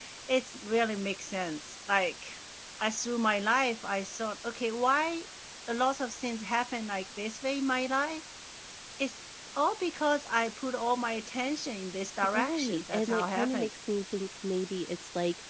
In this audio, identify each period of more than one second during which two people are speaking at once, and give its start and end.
12.3-13.7

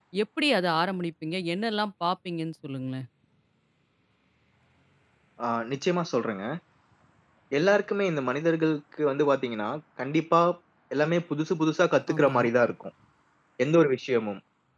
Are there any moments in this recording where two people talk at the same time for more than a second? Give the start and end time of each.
none

